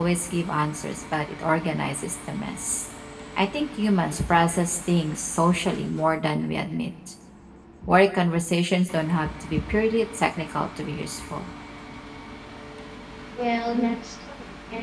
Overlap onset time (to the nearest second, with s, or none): none